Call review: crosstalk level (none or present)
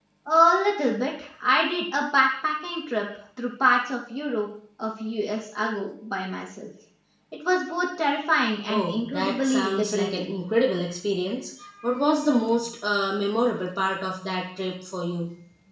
present